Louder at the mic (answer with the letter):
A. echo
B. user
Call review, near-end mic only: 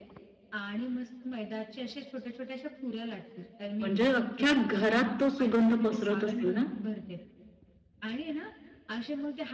B